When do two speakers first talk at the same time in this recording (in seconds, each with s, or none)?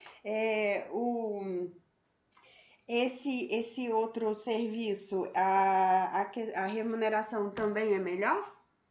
none